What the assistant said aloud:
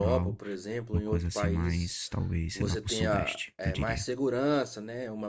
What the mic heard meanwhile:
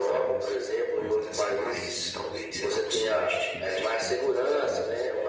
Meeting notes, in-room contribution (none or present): present